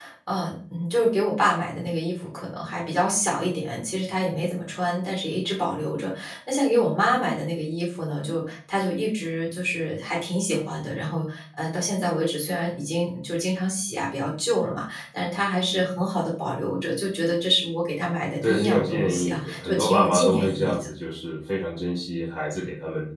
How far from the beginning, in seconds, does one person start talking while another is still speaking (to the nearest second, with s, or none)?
18 s